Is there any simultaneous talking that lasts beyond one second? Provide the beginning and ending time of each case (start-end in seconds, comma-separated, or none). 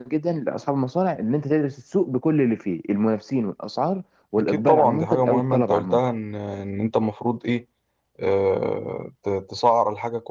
4.4-6.0